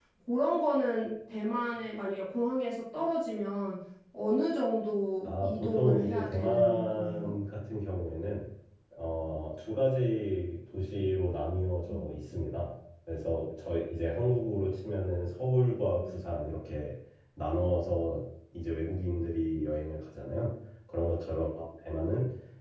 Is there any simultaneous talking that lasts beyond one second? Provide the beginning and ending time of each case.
5.2-7.3

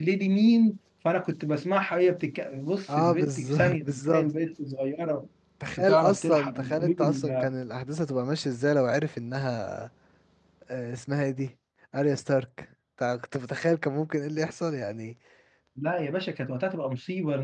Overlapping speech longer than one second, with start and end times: 2.9-4.3, 5.8-7.5

